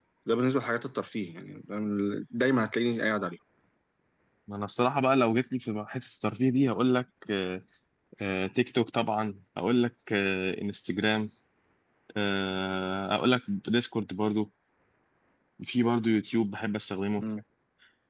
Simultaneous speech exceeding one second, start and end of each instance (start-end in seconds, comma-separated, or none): none